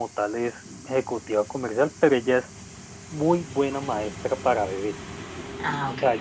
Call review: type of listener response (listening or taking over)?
listening